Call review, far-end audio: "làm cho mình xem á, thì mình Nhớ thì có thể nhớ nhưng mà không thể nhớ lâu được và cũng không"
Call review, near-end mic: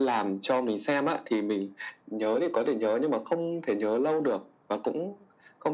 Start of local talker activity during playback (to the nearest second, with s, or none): none